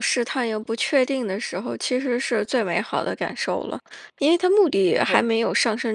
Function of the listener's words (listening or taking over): listening